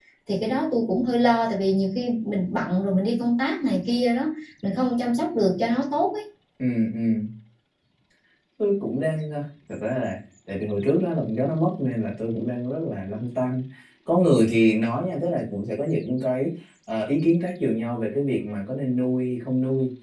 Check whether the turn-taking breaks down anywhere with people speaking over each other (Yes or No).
No